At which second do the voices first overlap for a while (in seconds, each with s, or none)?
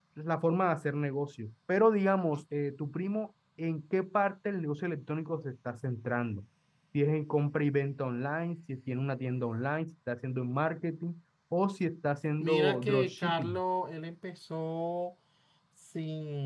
12.4 s